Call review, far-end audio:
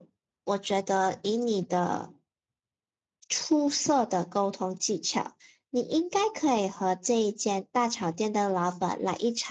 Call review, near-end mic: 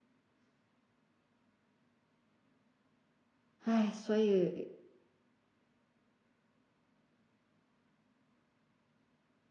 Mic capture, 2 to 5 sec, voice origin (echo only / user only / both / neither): user only